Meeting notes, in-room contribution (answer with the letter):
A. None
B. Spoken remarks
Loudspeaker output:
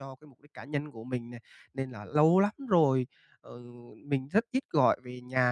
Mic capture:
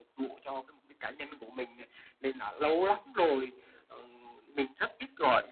A